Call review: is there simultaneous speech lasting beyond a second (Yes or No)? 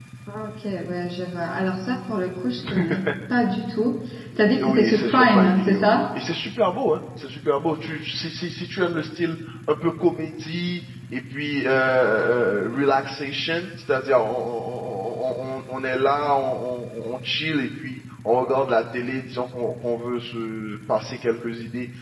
Yes